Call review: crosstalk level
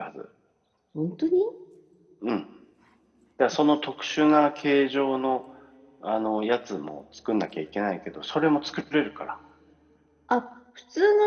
none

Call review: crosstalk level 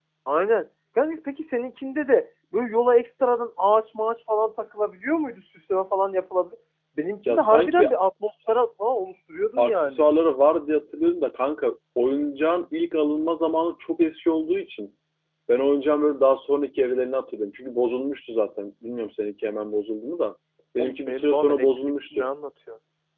present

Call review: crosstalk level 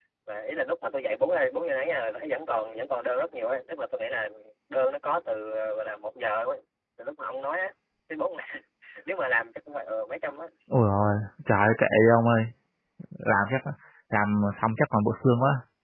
none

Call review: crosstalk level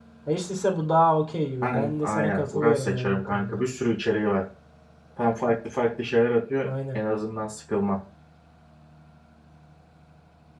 present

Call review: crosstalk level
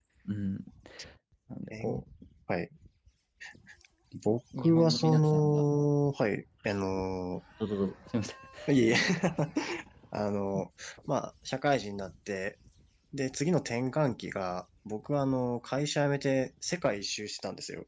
present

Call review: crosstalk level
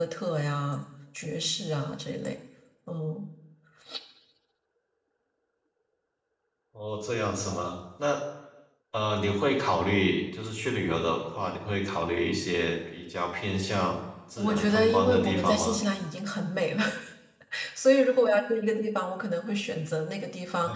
present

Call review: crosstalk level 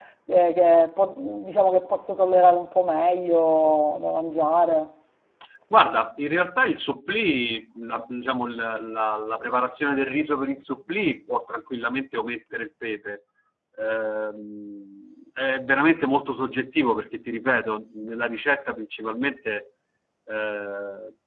none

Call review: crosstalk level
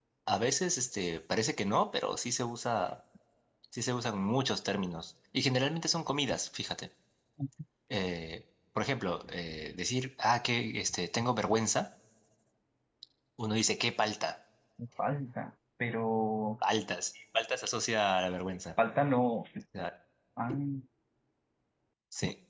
none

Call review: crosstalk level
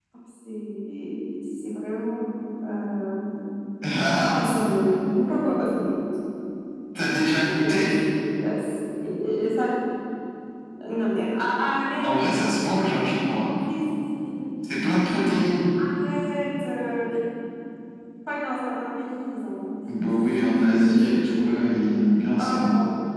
present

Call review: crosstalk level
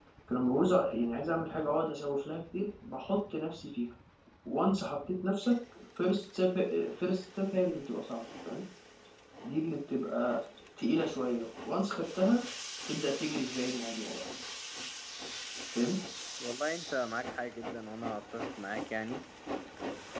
none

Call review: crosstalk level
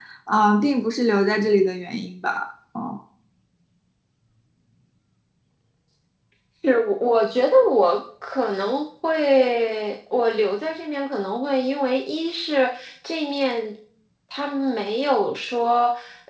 none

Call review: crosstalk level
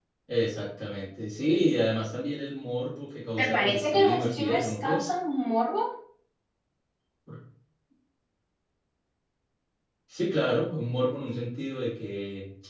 present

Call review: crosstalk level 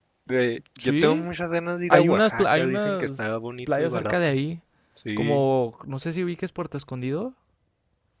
present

